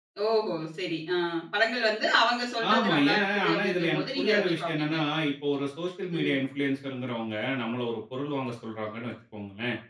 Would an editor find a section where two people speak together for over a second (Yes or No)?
Yes